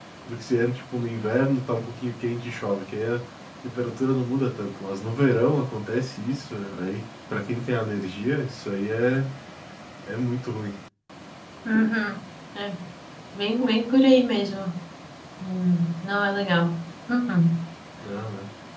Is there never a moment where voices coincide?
Yes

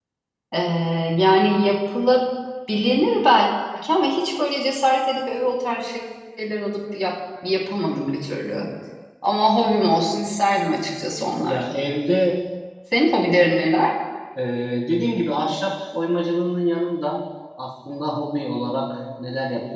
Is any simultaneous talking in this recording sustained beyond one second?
No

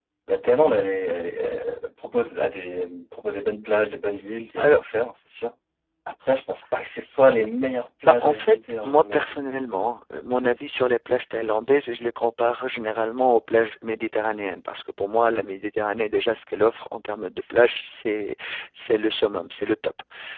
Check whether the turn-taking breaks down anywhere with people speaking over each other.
Yes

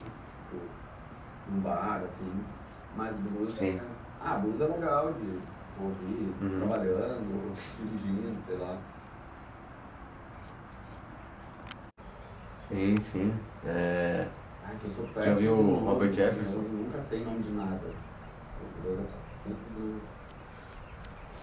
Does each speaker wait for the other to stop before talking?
No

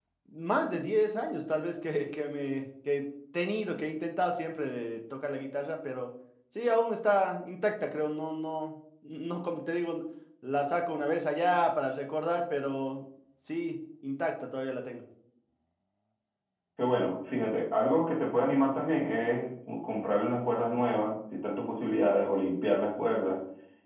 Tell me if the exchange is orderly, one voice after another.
Yes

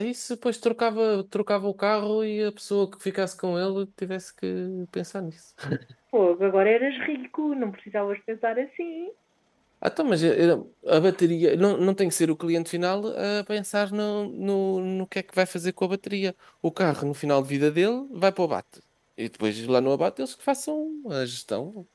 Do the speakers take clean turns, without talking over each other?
Yes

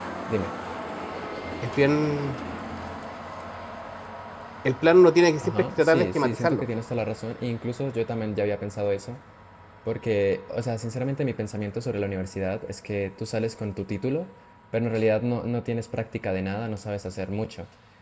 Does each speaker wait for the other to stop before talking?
No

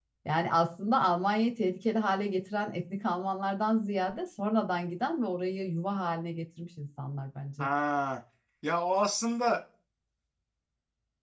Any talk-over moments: No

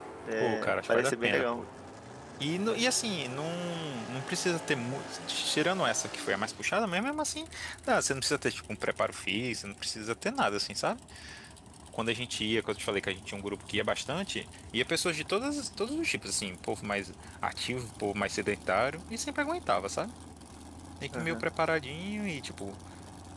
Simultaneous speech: Yes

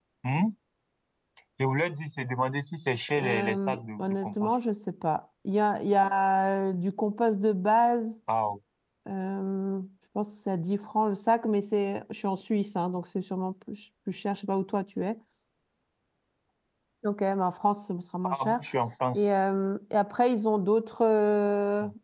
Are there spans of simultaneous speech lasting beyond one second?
Yes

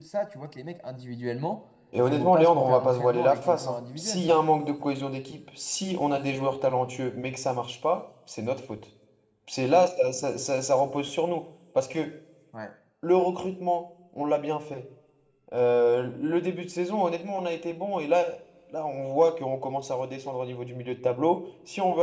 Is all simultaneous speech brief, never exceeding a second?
No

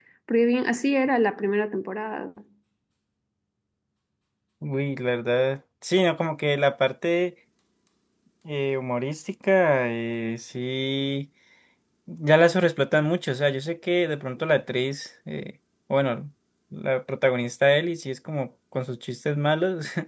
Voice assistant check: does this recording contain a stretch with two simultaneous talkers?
No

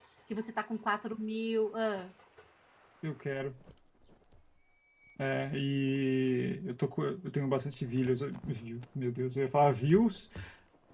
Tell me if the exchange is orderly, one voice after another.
Yes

